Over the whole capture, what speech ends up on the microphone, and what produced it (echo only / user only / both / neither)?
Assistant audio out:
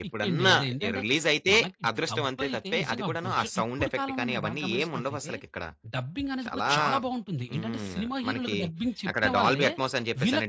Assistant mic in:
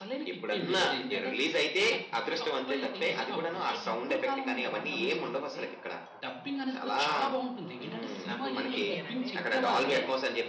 both